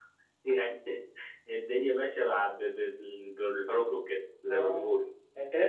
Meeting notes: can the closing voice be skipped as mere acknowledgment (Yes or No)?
No